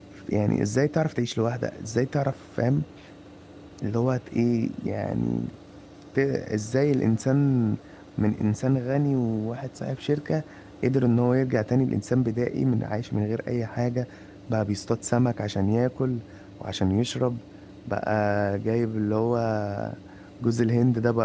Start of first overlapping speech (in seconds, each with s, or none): none